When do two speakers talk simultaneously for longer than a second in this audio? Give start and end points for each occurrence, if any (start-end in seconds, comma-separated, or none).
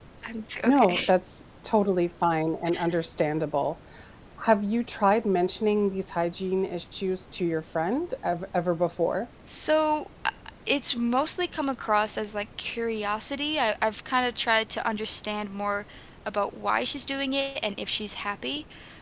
none